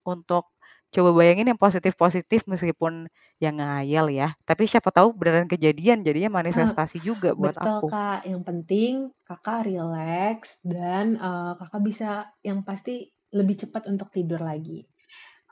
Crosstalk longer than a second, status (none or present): none